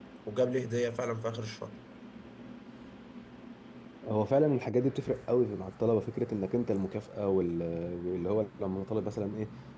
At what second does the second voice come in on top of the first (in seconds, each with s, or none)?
none